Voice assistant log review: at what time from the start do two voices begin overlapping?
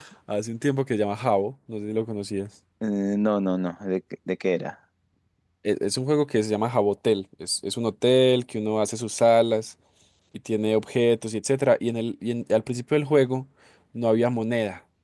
none

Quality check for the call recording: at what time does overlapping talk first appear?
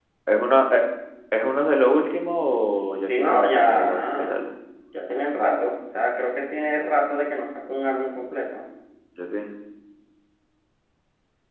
3 s

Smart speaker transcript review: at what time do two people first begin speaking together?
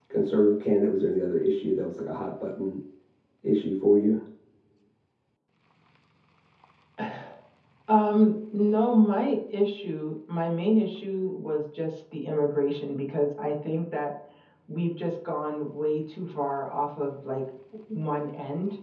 none

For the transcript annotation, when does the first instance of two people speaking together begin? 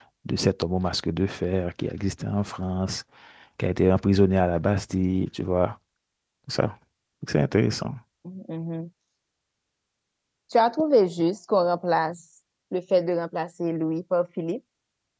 none

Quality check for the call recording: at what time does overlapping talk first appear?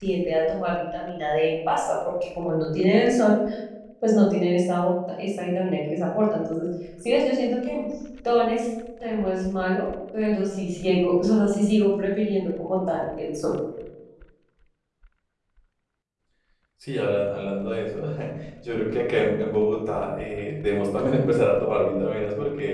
none

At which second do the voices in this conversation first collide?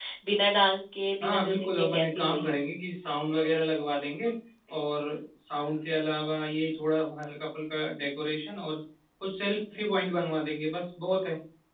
1 s

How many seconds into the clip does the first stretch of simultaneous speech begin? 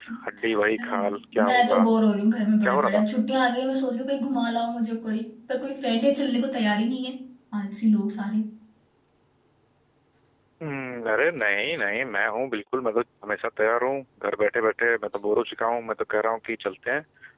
1 s

